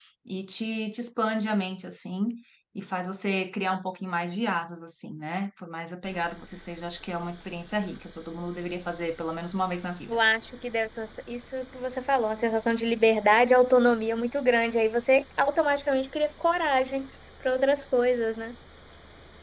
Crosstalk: none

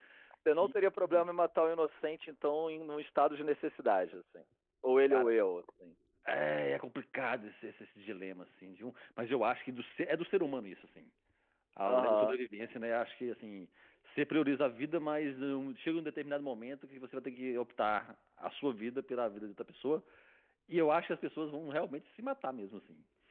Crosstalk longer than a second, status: none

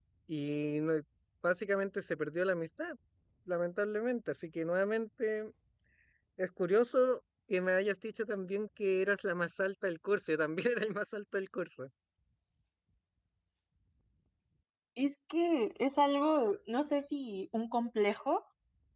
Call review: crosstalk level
none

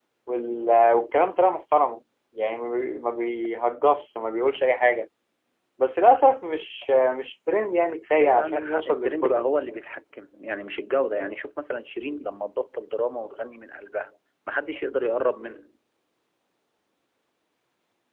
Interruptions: present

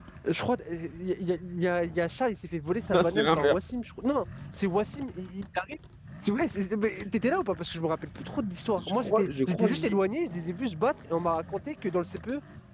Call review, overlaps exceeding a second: present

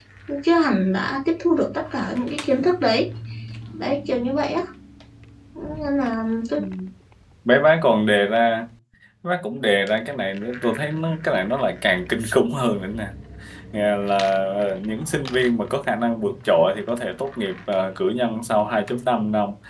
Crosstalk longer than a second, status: none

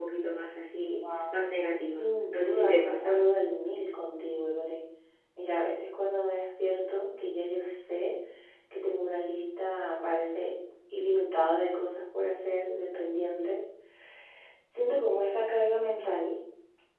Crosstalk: present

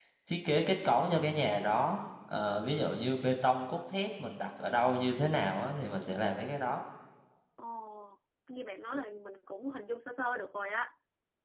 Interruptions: none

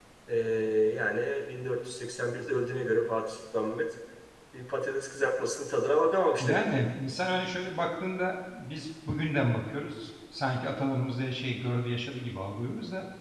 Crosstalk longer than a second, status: none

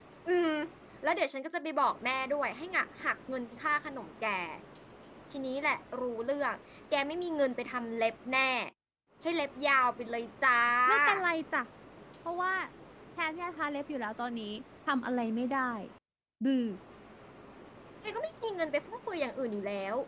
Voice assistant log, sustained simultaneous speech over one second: none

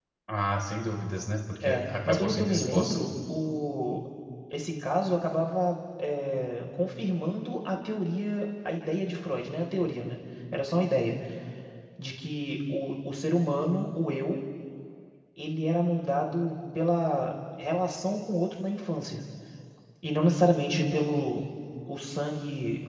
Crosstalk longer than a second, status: present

